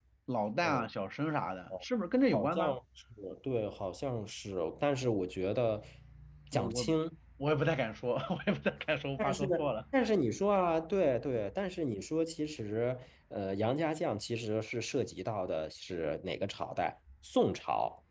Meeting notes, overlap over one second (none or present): none